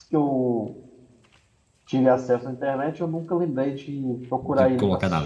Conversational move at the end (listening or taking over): taking over